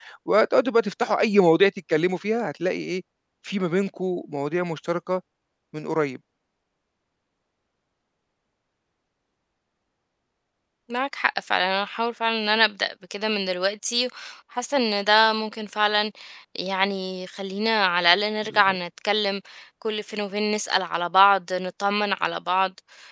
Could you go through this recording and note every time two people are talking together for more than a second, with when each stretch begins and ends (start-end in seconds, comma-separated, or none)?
none